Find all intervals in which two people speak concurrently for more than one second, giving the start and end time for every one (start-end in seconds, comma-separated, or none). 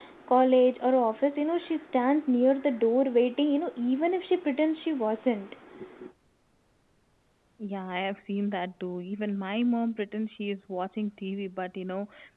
none